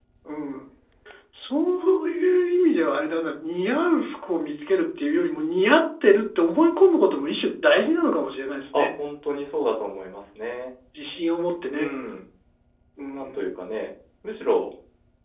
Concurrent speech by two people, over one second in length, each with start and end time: none

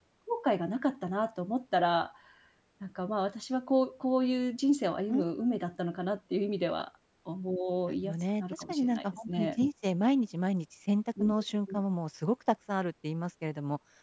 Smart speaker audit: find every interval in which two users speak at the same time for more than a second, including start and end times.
7.9-9.6

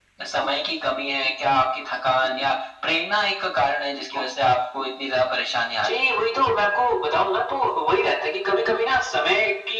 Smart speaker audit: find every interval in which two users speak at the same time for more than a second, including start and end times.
none

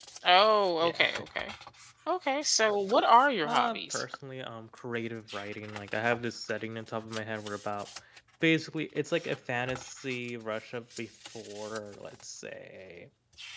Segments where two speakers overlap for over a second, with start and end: none

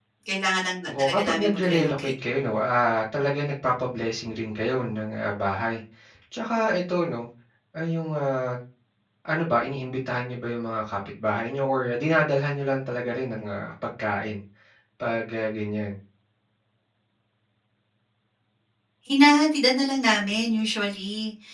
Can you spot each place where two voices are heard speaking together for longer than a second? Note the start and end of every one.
0.9-2.4

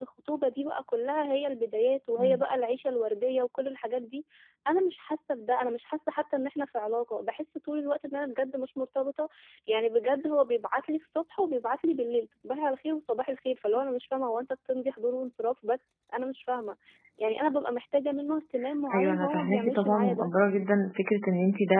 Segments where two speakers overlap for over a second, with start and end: 18.9-20.3

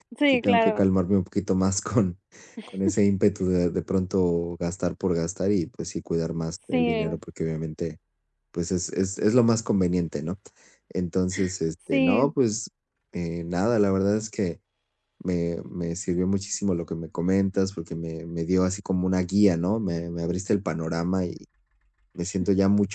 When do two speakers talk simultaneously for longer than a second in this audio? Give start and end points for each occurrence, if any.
none

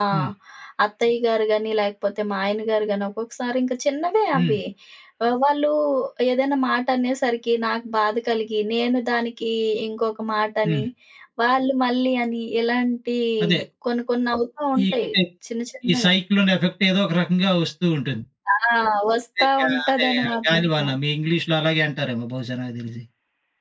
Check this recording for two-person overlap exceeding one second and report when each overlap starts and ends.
19.4-20.8

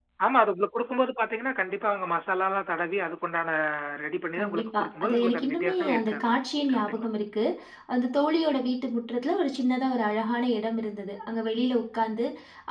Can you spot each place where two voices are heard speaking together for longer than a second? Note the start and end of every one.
4.4-6.3

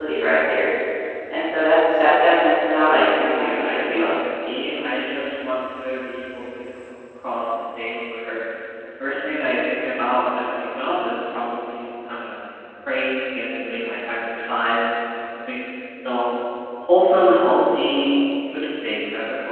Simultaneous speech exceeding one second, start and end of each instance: 2.9-4.2

